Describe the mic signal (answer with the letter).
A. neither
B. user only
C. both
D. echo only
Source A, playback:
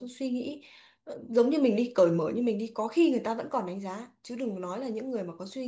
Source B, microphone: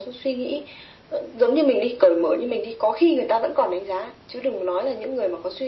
D